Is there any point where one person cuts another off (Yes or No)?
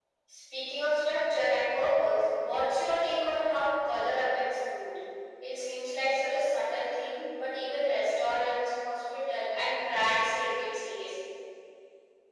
No